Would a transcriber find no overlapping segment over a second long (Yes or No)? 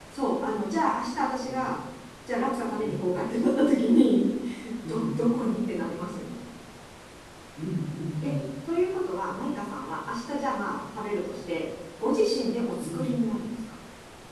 Yes